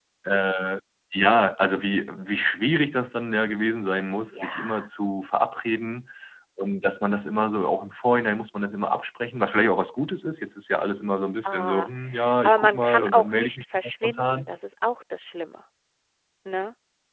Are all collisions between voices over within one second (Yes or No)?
No